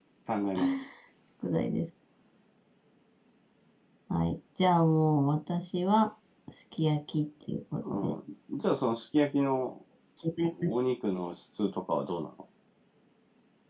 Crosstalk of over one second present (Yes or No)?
No